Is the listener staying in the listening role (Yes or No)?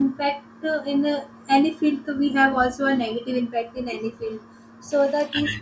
Yes